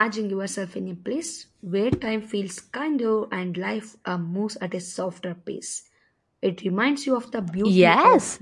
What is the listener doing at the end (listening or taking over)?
taking over